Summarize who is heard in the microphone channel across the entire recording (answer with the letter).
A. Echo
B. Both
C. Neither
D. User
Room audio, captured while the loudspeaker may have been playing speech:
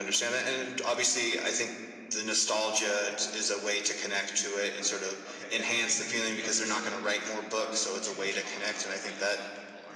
B